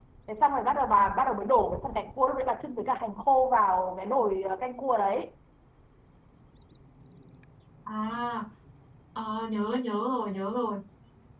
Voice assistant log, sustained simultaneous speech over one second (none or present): none